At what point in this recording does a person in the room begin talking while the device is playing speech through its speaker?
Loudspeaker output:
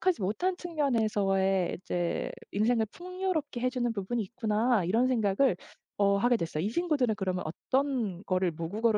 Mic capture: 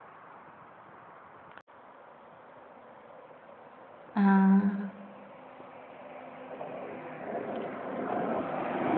4.2 s

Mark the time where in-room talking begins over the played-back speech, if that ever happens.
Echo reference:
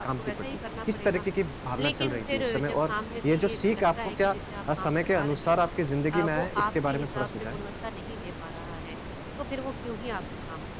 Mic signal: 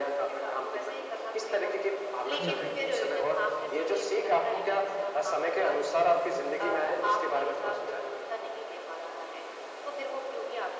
2.4 s

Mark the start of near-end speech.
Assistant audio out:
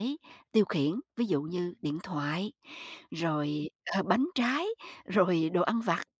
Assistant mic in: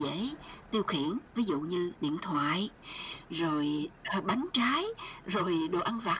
none

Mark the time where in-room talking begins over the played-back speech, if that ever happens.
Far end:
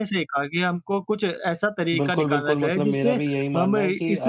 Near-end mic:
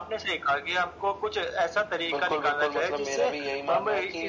none

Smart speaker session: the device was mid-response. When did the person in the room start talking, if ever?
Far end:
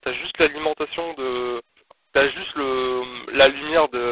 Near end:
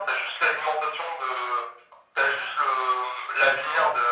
none

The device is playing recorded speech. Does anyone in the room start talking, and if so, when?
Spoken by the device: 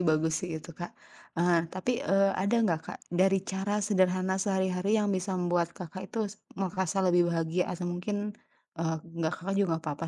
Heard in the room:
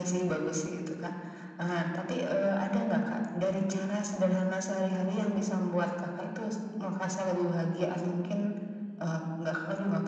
none

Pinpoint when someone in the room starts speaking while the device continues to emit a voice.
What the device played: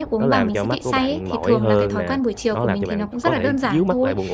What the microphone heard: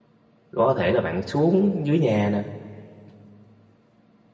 0.6 s

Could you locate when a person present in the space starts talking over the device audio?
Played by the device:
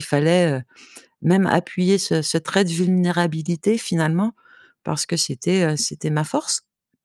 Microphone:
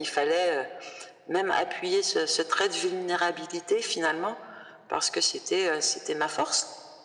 none

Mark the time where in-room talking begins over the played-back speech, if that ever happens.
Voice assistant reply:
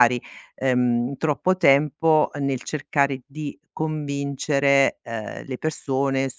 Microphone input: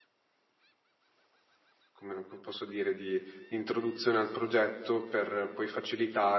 1.9 s

